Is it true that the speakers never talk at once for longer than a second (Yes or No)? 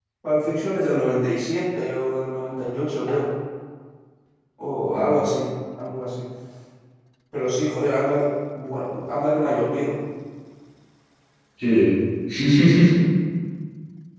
Yes